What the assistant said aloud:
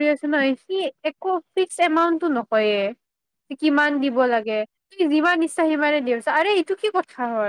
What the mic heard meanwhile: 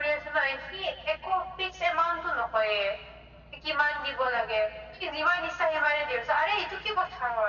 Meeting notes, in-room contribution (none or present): none